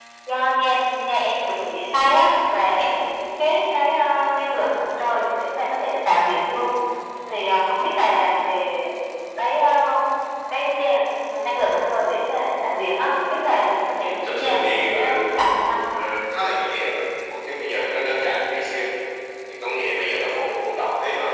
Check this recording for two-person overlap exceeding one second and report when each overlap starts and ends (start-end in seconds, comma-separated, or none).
14.0-15.2